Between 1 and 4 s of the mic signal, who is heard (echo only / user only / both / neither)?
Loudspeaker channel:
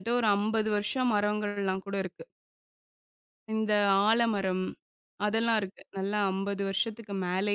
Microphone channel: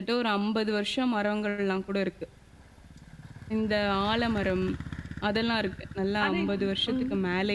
echo only